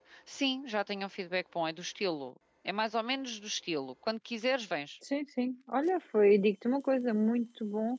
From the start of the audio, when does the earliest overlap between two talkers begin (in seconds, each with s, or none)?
none